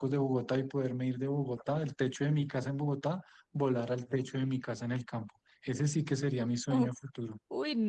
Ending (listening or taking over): taking over